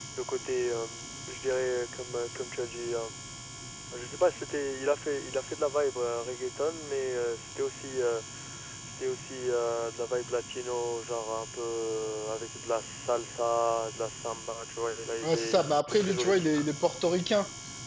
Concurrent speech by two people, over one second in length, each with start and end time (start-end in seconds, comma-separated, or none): 15.2-16.6